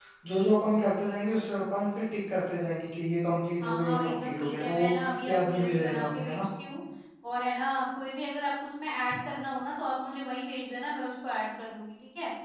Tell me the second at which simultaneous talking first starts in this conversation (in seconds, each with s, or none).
3.6 s